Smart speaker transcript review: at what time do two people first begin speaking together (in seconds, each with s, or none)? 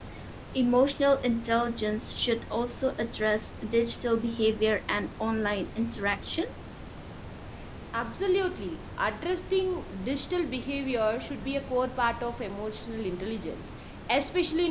none